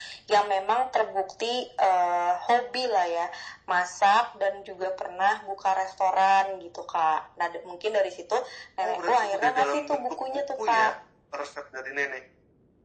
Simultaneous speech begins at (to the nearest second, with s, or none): 9 s